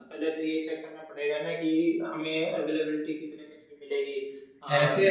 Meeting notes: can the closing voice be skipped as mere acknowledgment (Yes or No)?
No